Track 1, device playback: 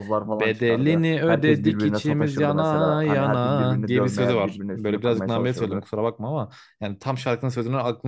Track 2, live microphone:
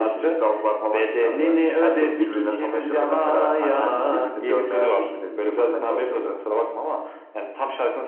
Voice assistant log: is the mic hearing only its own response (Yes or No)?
Yes